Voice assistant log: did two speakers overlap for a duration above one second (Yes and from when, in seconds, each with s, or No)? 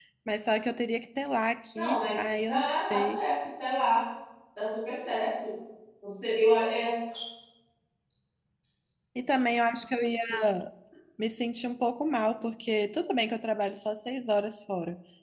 Yes, from 1.8 s